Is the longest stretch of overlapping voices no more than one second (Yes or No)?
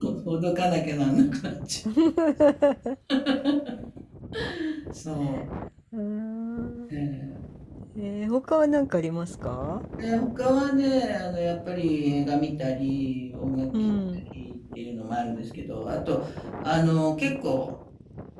Yes